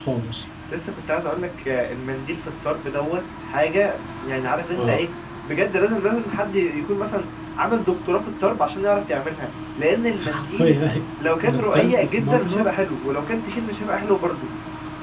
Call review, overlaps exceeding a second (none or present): present